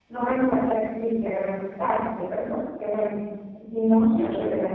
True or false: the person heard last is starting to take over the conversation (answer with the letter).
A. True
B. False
B